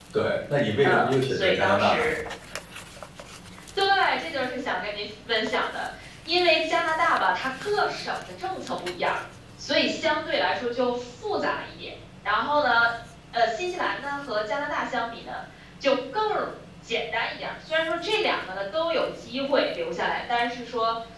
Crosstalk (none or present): present